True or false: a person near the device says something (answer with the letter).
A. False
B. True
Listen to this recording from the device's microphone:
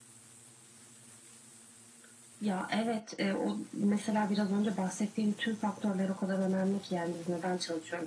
A